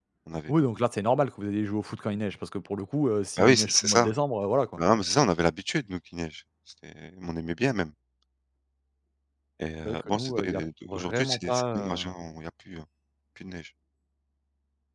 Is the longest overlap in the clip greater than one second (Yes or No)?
Yes